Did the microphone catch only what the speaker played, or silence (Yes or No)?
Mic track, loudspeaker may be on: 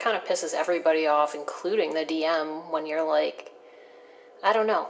Yes